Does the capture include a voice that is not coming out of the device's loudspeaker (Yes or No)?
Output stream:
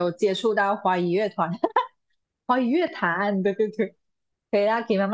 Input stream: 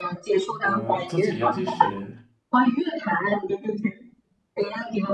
Yes